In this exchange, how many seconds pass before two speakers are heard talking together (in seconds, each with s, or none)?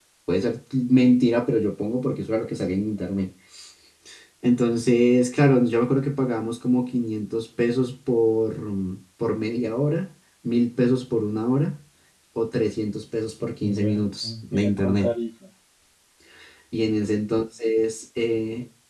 13.6 s